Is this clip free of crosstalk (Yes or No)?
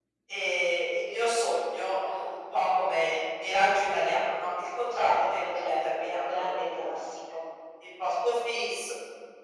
No